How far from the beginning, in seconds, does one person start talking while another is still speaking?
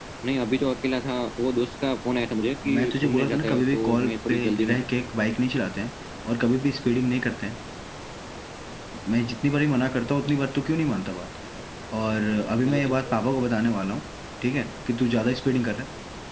3 s

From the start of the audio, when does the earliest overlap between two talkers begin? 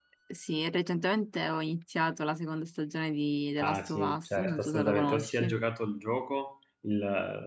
4 s

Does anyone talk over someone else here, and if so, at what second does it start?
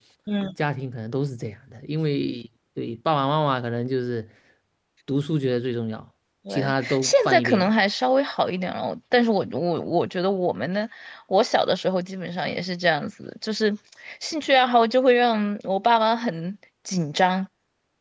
6 s

